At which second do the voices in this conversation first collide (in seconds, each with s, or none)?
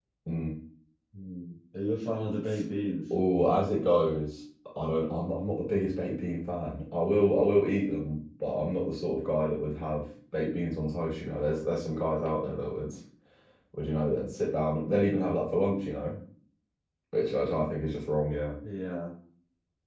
none